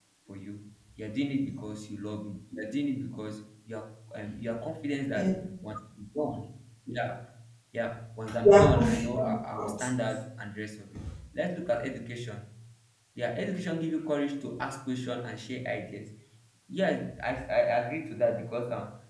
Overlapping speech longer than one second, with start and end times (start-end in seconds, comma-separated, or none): 8.4-9.7